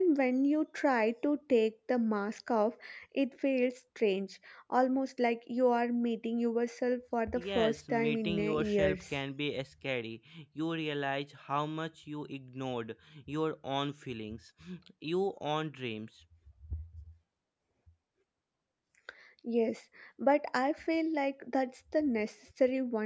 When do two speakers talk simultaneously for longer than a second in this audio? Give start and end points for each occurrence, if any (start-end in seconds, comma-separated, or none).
7.4-9.0